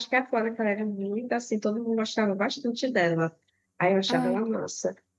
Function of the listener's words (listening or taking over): listening